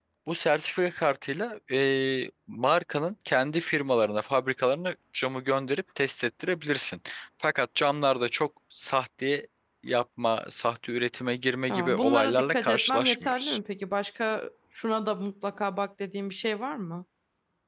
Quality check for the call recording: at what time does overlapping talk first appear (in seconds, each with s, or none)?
11.7 s